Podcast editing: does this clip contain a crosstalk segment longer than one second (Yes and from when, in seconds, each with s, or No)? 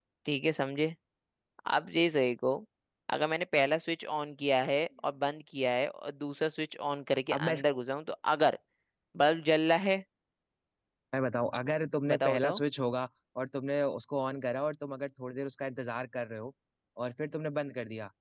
No